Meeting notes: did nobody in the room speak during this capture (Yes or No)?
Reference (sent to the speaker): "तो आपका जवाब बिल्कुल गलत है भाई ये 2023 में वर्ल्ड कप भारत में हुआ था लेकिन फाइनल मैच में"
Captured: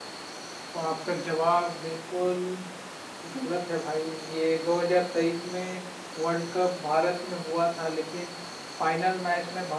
Yes